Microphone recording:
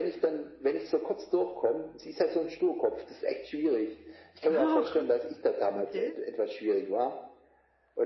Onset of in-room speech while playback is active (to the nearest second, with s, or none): 4 s